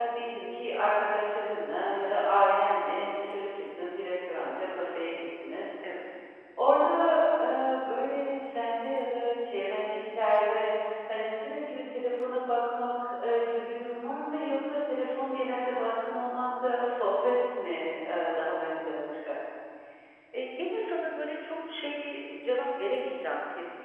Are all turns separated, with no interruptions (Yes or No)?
Yes